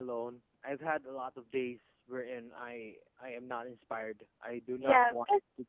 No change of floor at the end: No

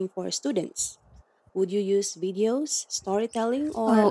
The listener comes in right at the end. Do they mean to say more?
Yes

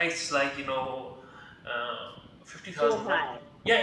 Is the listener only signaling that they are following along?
Yes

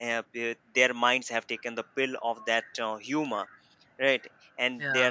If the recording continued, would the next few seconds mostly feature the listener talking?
No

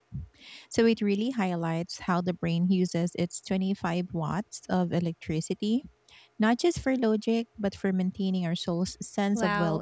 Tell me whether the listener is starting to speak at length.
Yes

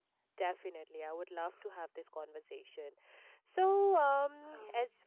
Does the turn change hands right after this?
No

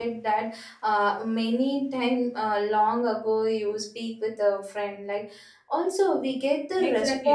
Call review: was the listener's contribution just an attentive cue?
No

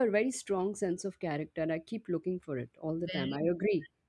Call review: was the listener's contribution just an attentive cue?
No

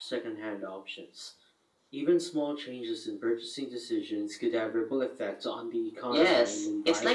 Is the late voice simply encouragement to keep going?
No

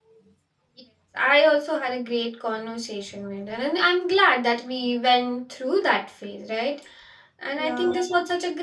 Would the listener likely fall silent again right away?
Yes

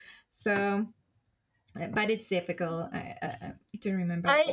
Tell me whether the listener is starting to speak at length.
Yes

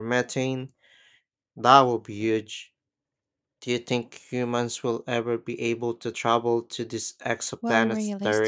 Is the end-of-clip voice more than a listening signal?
Yes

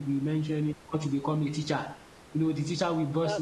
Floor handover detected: No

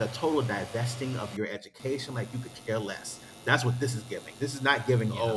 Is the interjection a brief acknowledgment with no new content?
Yes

